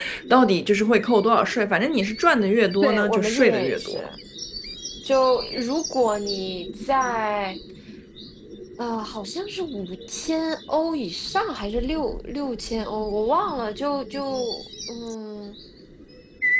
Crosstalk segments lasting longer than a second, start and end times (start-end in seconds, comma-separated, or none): 2.8-4.1